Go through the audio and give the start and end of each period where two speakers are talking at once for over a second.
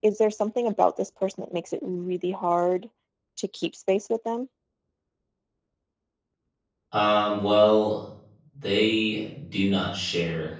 none

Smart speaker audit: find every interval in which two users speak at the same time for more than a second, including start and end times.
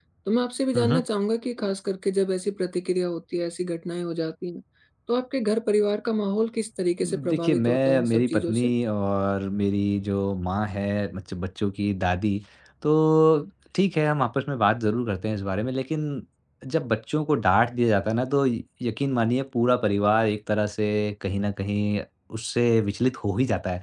7.0-8.7

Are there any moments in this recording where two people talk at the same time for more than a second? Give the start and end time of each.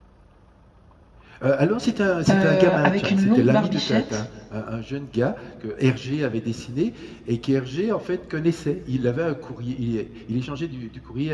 2.3-4.2

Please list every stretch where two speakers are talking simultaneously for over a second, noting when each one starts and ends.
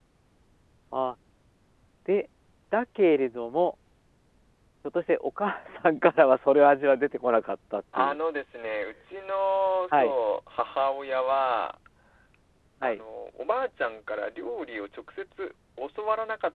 none

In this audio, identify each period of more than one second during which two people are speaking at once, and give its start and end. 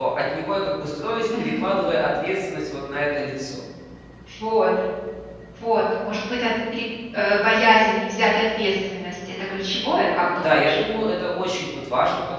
none

